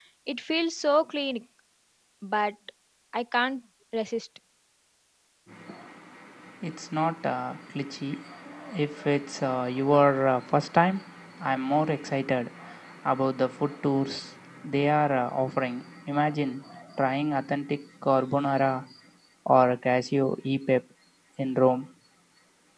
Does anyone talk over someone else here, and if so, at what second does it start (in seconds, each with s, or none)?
none